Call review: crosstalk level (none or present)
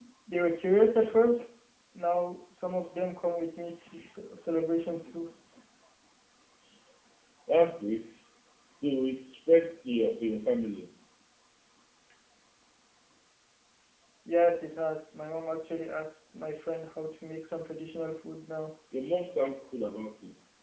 none